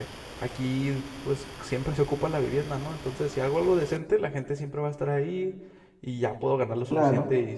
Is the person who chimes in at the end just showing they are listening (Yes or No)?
Yes